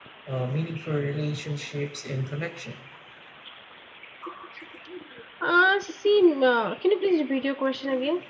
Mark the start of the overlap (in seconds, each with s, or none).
none